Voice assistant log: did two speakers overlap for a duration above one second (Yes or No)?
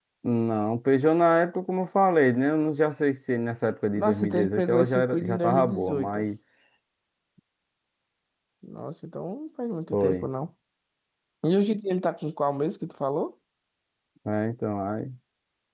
Yes